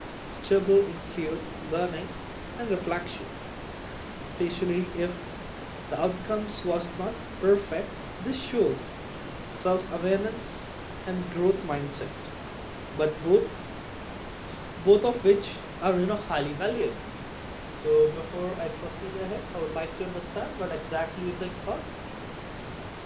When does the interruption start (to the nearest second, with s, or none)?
none